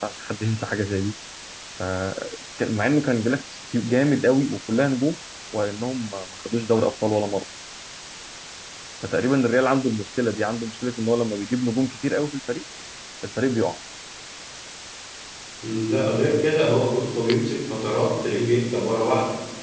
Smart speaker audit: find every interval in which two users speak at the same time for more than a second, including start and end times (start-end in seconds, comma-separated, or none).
none